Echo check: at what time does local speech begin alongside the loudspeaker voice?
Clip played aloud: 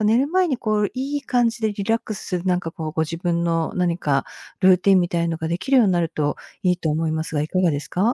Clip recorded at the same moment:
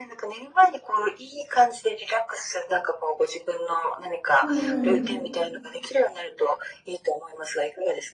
4.4 s

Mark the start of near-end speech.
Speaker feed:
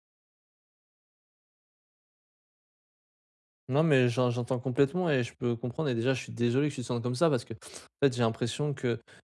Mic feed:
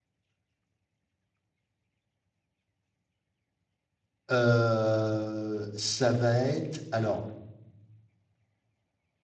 4.3 s

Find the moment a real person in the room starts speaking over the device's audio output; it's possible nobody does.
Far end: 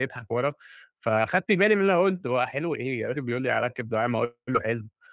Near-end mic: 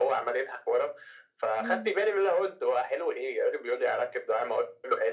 1.6 s

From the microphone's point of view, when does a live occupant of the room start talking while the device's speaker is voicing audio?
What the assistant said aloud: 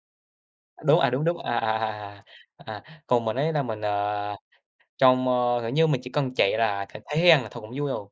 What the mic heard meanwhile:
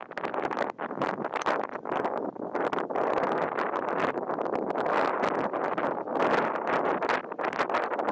none

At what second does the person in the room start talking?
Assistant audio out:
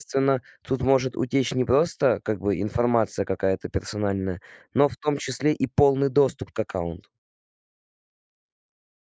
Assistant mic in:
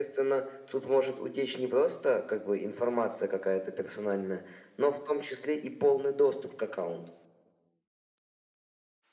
none

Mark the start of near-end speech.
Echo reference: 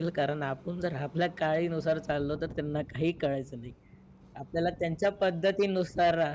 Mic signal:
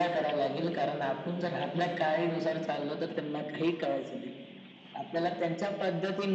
none

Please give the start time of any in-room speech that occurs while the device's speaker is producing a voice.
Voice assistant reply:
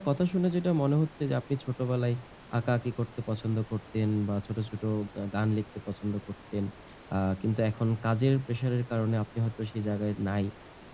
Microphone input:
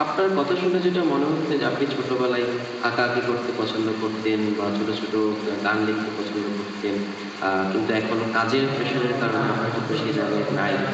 8.6 s

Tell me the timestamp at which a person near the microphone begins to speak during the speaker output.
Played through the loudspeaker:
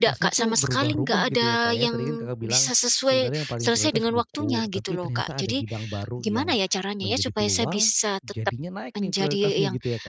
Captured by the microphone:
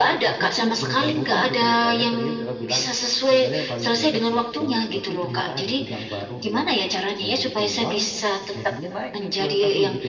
none

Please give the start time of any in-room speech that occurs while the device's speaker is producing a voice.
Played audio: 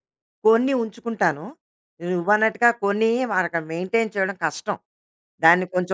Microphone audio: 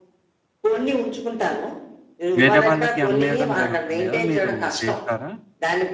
2.4 s

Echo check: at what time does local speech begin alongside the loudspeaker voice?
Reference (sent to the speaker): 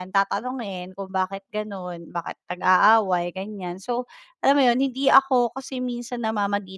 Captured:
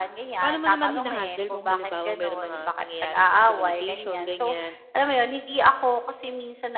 0.4 s

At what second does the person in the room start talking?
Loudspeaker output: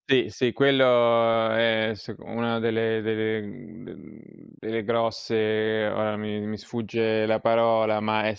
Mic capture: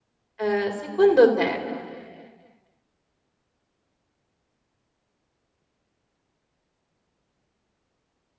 0.3 s

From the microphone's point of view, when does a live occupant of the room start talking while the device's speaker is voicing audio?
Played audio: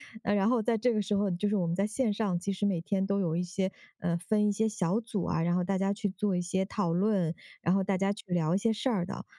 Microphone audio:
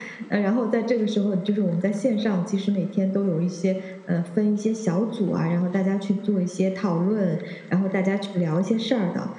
none

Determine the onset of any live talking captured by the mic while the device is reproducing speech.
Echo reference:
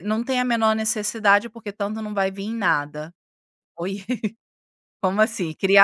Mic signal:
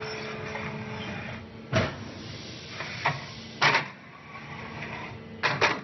none

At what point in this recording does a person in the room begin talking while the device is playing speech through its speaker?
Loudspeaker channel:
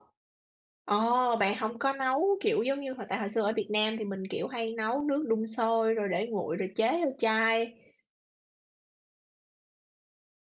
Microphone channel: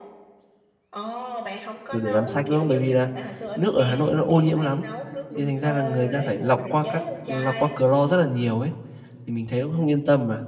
1.9 s

